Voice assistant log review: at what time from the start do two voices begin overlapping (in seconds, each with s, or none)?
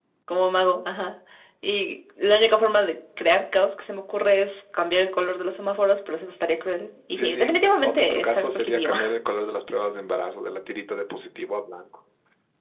7.1 s